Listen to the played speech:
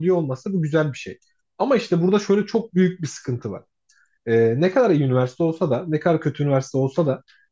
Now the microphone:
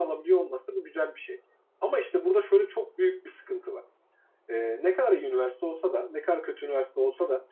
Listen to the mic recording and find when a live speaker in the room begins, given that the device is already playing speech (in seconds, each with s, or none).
none